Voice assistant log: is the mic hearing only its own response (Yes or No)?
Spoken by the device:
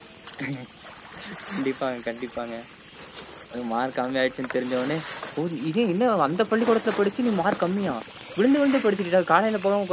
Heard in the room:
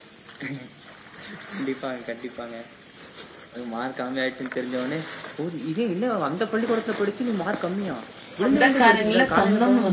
No